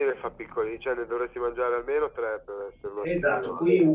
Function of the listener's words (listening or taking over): taking over